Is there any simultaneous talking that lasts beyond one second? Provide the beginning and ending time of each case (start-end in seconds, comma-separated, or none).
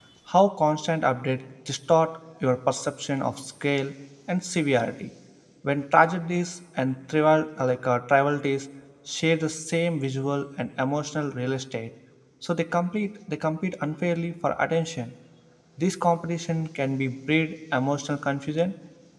none